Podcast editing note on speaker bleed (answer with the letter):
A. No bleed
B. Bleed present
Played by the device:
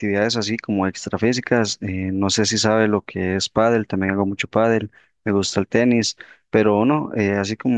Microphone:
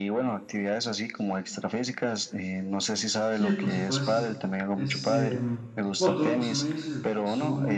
B